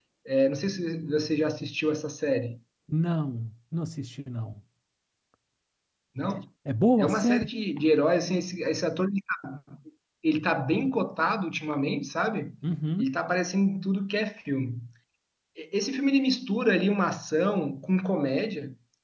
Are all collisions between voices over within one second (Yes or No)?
Yes